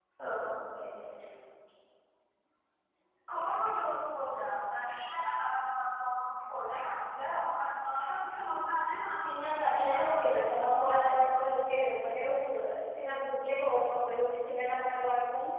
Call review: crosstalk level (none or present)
present